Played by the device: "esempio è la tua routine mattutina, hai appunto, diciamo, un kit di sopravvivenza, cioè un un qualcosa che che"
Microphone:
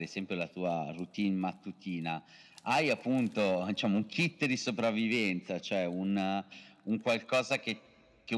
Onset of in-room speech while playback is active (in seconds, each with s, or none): none